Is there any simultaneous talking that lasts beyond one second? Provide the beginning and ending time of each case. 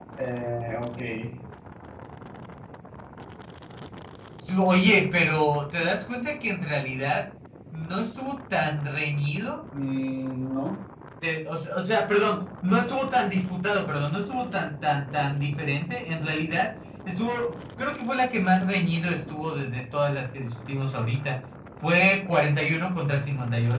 none

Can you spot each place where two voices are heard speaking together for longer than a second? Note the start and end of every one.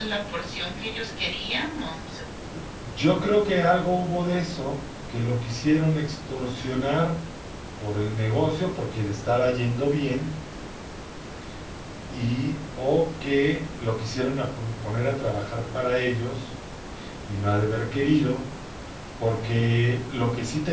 none

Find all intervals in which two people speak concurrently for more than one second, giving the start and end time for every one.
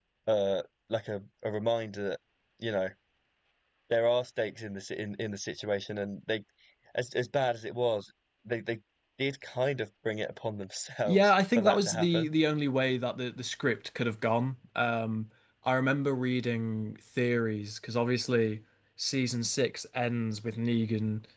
11.1-12.3

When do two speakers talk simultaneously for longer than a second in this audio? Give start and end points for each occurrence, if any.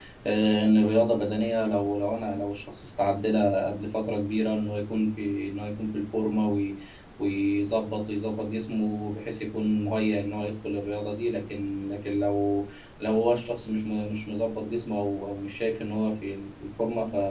none

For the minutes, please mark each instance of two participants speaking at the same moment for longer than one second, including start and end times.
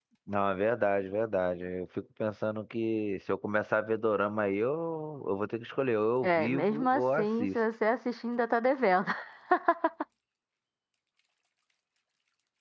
6.2-7.6

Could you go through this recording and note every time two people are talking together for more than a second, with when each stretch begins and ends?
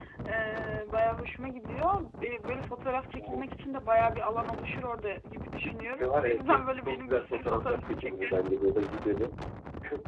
5.6-8.3

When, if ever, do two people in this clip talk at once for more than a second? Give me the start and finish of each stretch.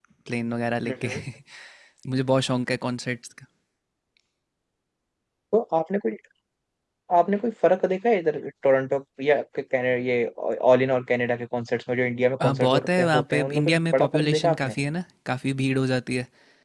12.4-14.7

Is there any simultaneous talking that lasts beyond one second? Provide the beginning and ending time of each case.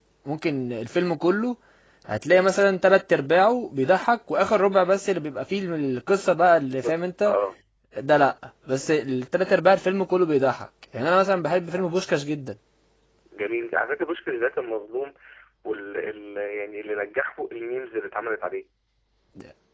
none

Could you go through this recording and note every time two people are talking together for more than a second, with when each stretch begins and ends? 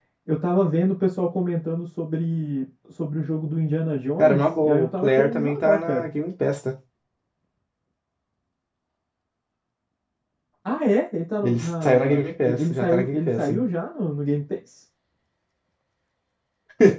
4.2-6.1, 11.4-13.6

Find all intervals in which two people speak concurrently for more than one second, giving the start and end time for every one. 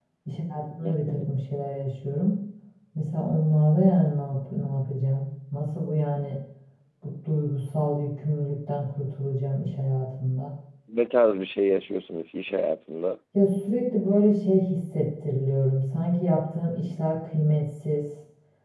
none

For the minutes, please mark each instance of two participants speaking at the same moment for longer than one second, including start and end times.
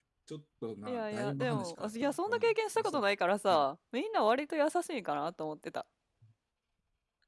0.9-3.0

